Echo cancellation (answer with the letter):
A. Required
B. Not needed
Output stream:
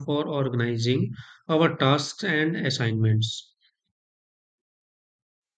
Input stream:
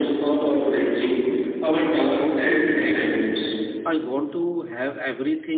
A